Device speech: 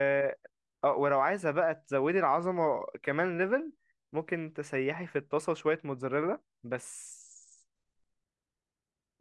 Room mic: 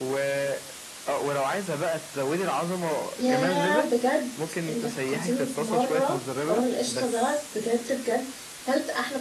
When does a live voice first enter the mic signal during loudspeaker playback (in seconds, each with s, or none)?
3.2 s